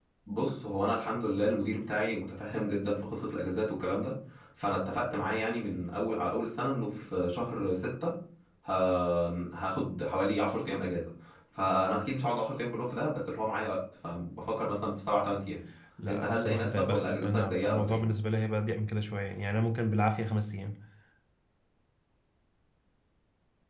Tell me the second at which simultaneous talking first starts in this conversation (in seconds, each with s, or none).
16.1 s